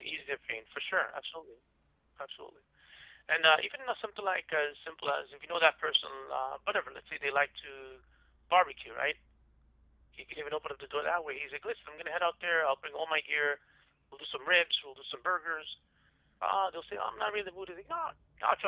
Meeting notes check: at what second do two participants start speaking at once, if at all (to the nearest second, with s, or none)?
none